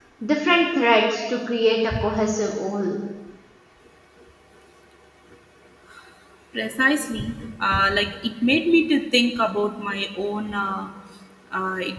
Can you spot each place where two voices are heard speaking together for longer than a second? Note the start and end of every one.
none

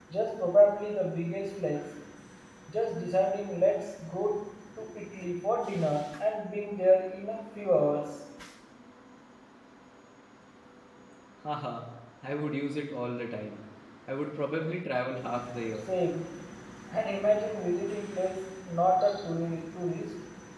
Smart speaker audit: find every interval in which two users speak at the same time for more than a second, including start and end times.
none

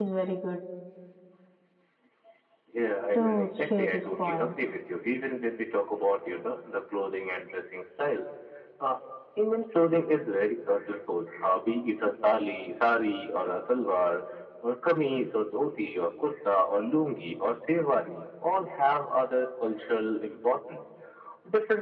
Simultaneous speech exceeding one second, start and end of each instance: 3.1-4.5

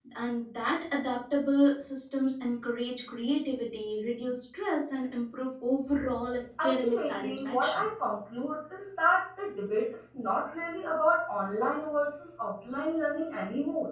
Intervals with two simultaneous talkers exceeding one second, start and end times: 6.6-7.9

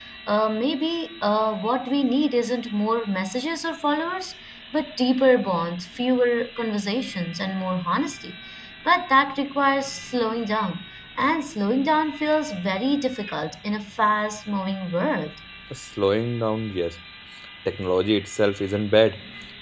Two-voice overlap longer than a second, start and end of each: none

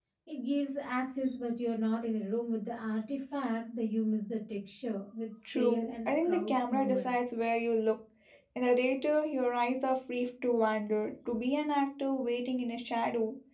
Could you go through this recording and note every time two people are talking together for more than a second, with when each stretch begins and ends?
5.5-7.1

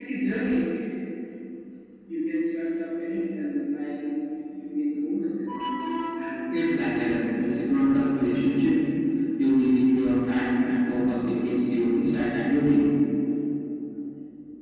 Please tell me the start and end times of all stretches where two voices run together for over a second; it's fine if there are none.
6.5-7.8

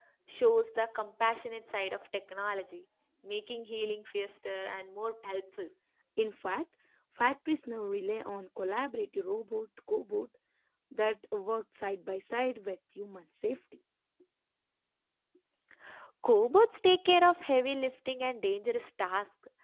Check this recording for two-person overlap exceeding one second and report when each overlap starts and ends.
none

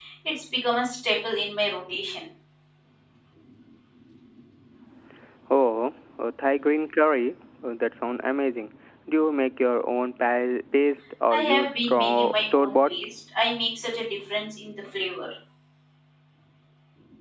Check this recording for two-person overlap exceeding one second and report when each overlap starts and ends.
11.3-12.9

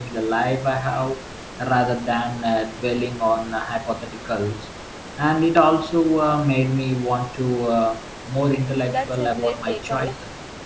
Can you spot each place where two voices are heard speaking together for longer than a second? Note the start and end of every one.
8.6-10.1

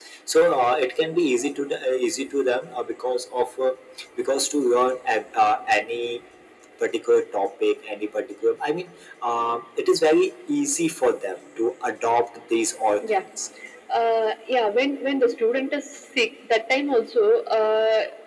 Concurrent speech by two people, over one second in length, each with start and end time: none

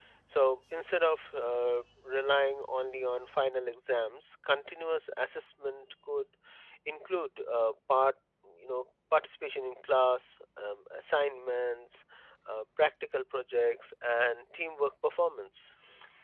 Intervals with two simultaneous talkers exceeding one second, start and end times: none

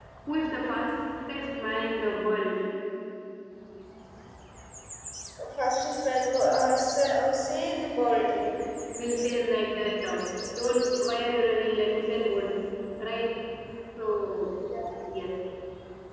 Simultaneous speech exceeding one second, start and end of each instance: none

